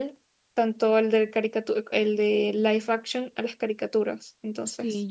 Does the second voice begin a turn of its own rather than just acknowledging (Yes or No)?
Yes